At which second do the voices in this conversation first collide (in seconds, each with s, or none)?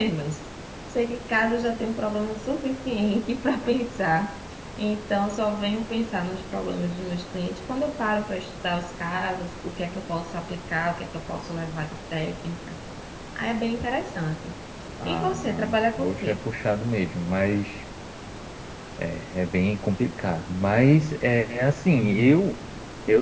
15.1 s